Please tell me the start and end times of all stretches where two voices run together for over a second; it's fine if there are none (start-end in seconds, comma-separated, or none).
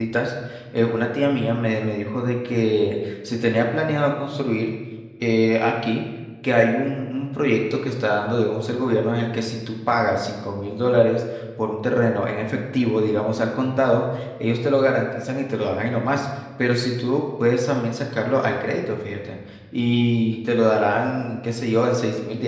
none